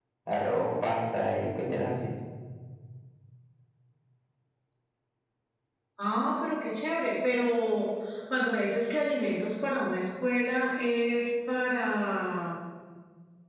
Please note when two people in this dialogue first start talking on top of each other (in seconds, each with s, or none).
none